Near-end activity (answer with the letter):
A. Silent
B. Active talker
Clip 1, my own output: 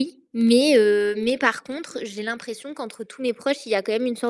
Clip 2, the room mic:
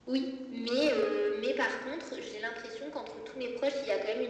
A